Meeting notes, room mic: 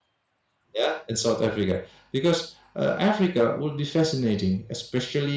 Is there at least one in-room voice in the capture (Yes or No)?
Yes